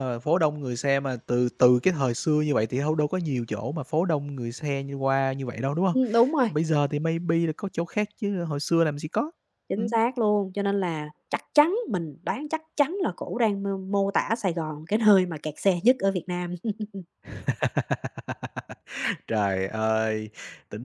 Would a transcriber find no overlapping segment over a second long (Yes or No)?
Yes